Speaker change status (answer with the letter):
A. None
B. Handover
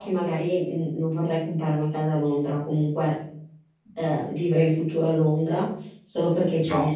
A